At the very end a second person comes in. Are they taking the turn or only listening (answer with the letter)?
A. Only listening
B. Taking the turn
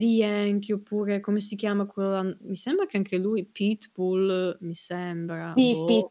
B